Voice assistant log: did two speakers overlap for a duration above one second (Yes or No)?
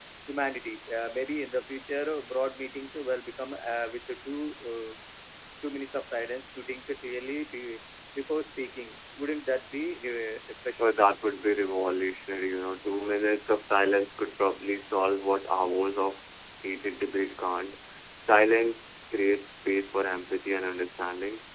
No